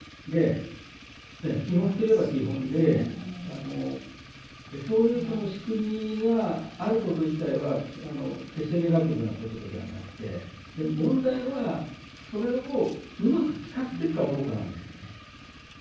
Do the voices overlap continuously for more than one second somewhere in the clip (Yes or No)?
Yes